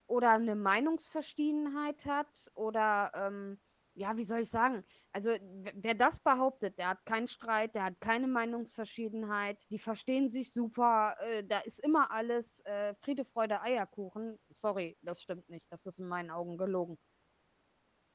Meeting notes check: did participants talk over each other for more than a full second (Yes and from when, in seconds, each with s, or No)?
No